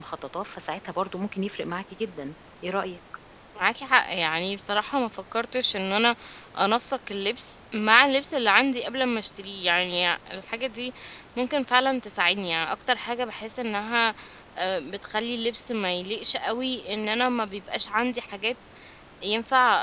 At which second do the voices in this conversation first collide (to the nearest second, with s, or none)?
none